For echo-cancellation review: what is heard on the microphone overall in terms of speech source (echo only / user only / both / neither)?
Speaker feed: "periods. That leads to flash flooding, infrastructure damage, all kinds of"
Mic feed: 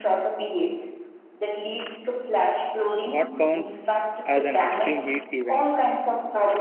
both